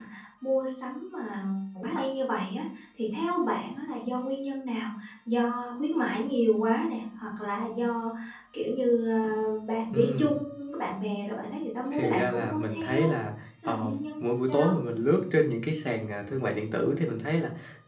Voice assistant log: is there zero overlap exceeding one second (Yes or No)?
No